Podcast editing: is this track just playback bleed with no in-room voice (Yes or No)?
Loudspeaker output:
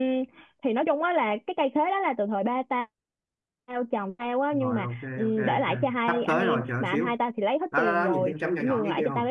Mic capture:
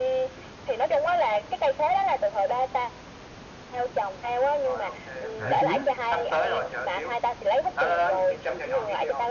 No